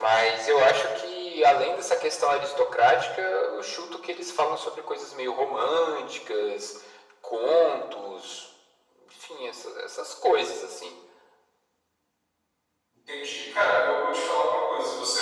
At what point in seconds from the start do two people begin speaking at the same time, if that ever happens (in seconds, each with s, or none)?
none